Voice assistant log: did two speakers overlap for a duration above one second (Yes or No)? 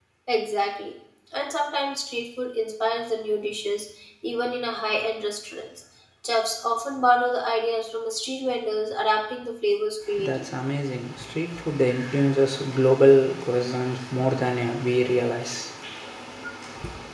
No